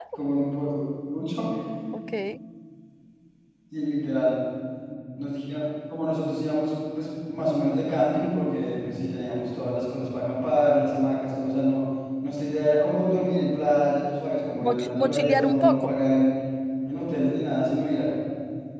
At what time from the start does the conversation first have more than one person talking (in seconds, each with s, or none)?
14.6 s